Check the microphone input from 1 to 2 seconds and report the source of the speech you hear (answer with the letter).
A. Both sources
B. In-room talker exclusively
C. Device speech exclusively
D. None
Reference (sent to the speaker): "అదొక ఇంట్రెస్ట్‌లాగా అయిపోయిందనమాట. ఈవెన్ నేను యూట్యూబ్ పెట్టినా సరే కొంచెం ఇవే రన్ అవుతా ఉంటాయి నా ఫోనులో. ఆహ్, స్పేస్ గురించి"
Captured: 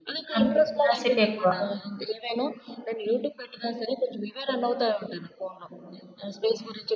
A